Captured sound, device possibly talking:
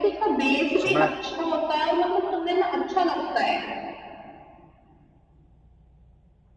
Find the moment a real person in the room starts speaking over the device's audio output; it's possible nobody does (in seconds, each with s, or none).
0.8 s